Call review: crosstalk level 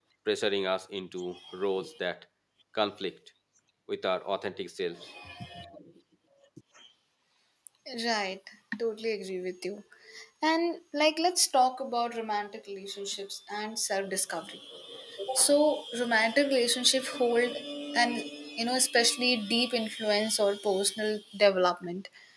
none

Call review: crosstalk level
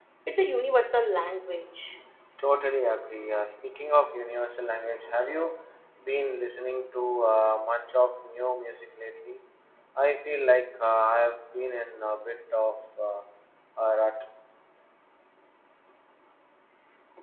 none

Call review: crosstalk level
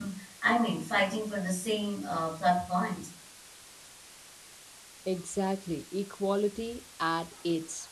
none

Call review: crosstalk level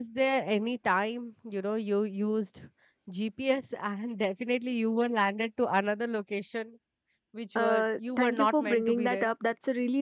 present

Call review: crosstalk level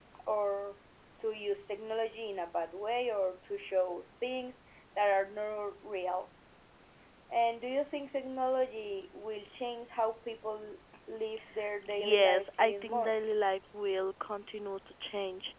present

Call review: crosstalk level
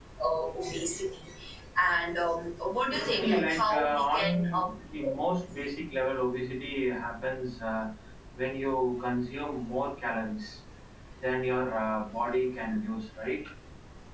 present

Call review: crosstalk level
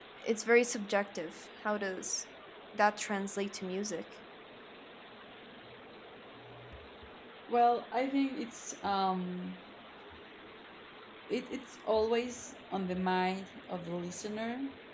none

